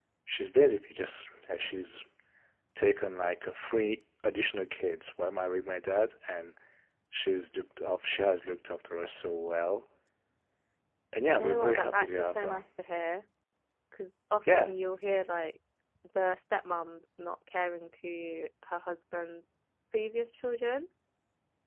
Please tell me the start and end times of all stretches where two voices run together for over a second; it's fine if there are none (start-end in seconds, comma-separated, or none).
11.2-12.6